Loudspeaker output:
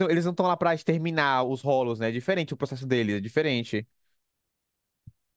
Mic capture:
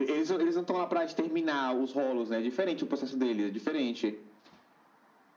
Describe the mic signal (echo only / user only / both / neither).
echo only